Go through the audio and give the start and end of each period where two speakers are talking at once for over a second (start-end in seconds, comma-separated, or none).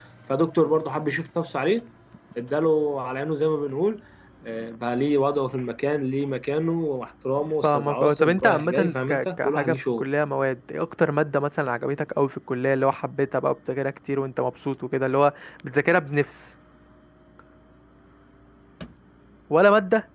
7.6-10.0